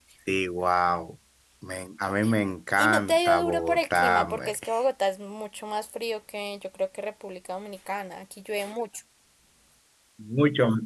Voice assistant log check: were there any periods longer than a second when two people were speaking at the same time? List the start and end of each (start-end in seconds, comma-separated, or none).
2.8-4.5